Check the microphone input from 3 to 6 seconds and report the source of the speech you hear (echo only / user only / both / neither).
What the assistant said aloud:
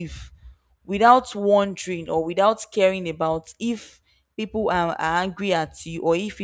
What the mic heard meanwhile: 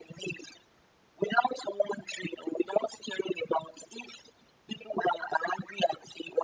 echo only